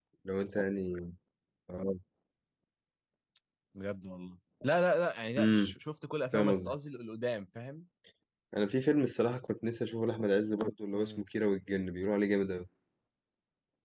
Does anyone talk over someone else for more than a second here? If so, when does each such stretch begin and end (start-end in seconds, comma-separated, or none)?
none